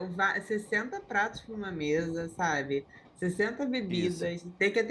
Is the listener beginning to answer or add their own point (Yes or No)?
No